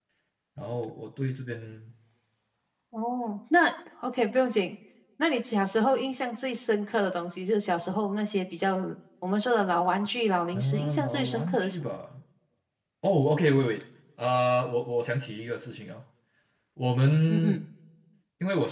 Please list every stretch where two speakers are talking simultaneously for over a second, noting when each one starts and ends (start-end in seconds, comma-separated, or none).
10.5-11.9